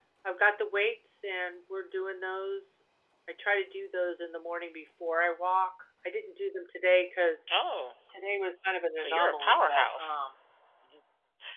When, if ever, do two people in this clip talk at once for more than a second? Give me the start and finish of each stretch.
9.0-10.2

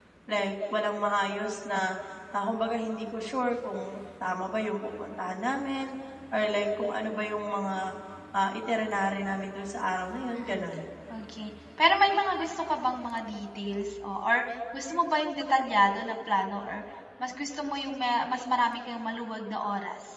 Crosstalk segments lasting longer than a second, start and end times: none

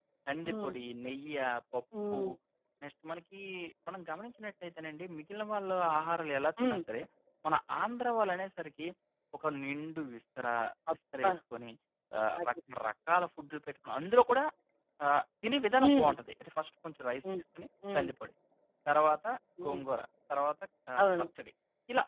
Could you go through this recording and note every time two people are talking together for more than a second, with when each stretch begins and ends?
none

